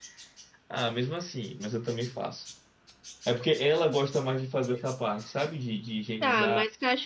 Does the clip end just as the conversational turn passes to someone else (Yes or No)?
Yes